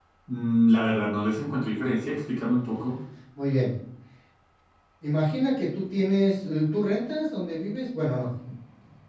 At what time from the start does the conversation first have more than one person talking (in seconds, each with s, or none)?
none